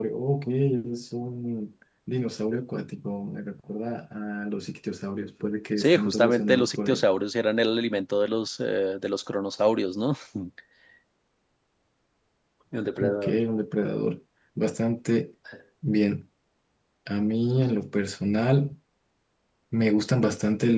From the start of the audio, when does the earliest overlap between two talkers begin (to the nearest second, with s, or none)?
6 s